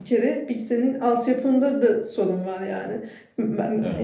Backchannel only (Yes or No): Yes